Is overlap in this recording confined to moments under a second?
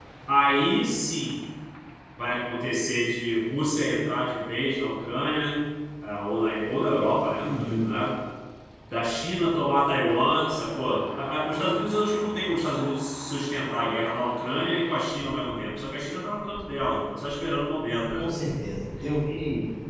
Yes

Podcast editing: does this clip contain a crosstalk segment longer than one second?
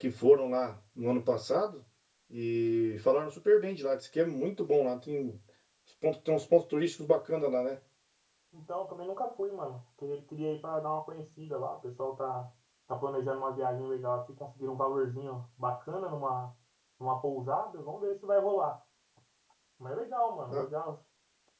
No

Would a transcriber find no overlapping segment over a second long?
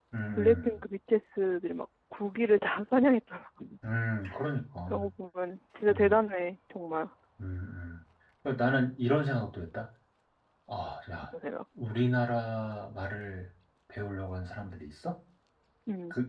Yes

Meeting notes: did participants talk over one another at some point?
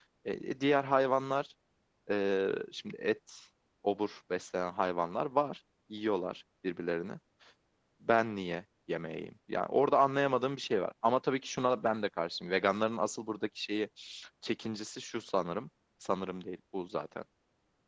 No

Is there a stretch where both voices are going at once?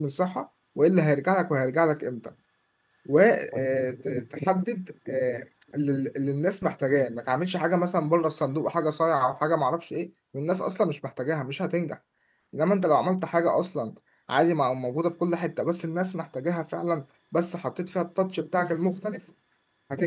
No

